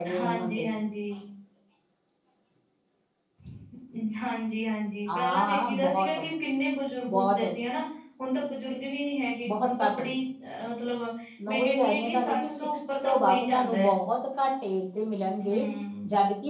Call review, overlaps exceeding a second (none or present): present